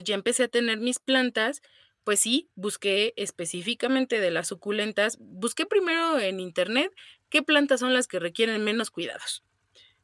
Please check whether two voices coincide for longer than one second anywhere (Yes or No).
No